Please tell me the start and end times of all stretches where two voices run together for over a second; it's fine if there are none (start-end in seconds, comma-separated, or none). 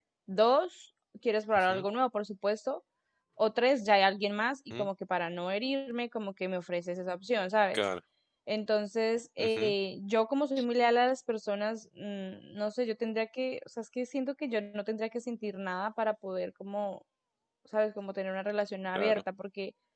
none